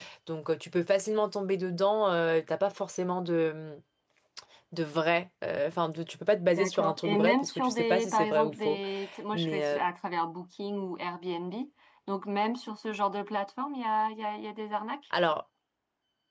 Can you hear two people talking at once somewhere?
Yes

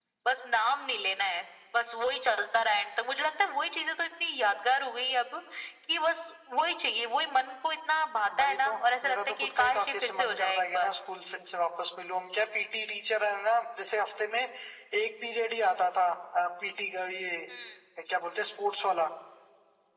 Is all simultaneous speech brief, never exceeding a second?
No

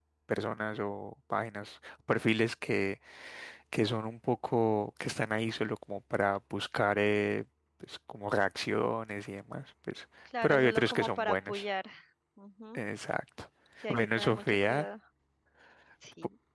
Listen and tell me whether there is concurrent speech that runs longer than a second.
Yes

